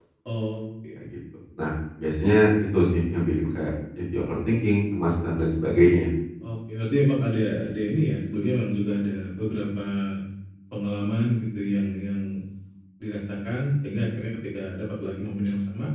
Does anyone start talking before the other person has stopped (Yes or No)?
No